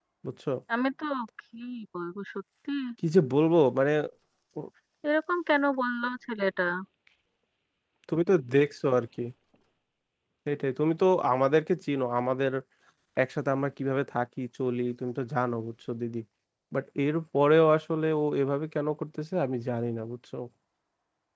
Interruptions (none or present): none